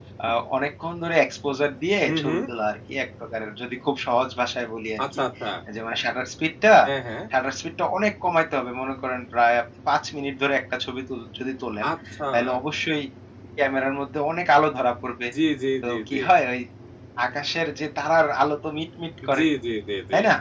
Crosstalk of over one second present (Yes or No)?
No